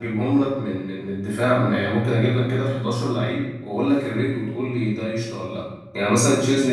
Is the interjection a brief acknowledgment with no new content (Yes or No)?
Yes